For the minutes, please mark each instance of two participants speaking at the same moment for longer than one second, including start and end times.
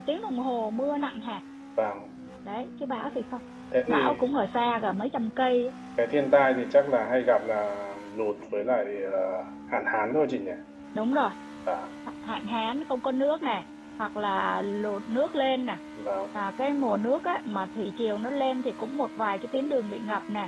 none

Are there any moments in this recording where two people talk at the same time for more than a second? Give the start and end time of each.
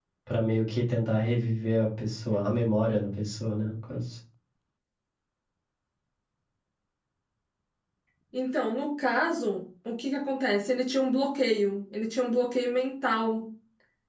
none

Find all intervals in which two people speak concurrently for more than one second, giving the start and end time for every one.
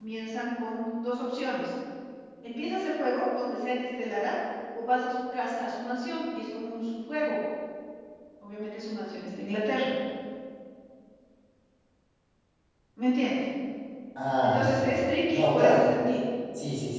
14.4-15.8

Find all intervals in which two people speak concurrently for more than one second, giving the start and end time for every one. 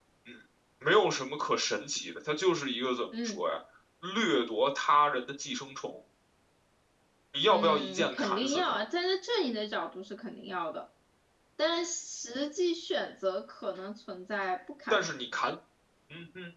7.5-8.8

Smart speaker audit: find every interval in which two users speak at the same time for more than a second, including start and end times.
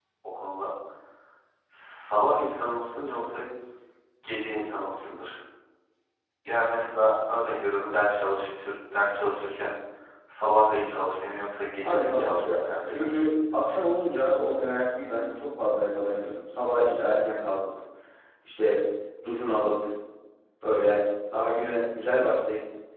11.8-13.2

